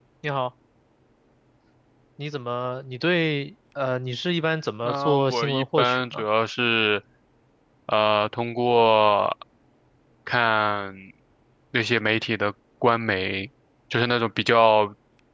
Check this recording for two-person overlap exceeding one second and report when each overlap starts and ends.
4.8-6.2

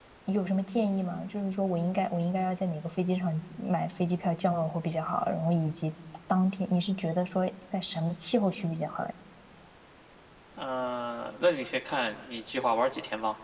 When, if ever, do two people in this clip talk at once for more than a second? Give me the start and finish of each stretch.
none

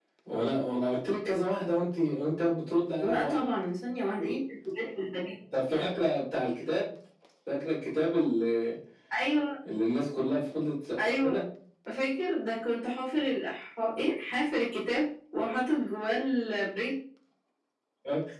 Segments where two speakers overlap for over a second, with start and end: none

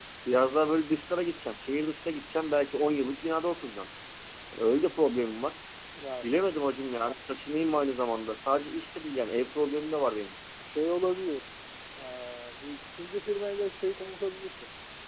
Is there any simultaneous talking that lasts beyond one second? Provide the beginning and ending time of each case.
none

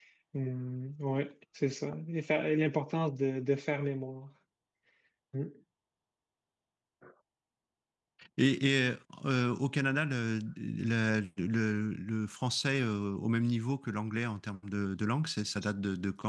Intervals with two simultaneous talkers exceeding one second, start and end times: none

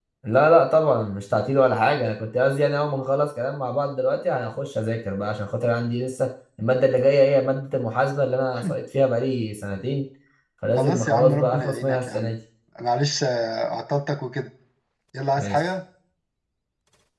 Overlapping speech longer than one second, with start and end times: 10.8-12.3

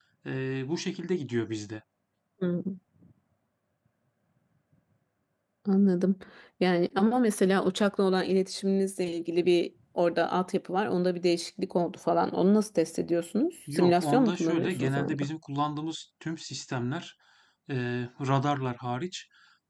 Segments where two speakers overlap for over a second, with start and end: 13.7-15.3

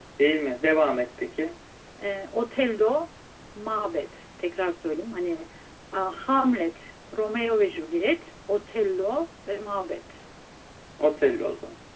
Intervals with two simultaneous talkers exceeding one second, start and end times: none

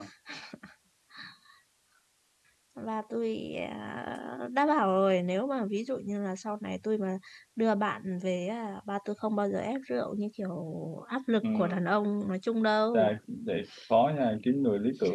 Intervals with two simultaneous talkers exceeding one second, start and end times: none

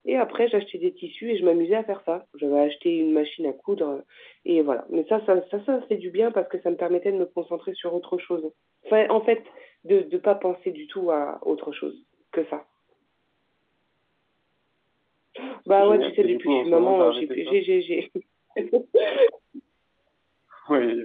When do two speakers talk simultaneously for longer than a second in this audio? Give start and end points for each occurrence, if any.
15.7-17.6

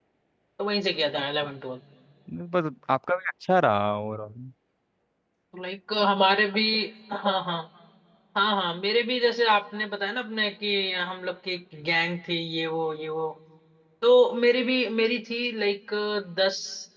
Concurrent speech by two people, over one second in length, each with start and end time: none

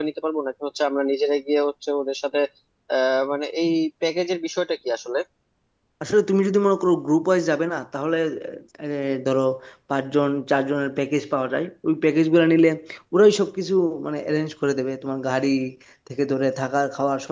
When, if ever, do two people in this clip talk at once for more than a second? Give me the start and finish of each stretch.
none

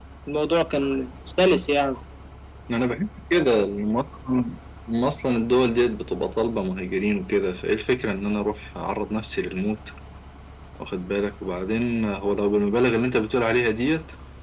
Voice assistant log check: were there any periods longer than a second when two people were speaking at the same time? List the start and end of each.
none

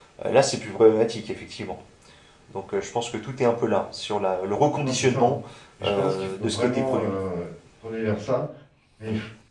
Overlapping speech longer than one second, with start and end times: 5.8-7.1

